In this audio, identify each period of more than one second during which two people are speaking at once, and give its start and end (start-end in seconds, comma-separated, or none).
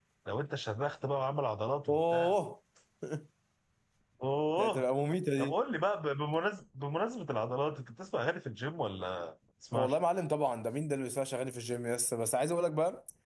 none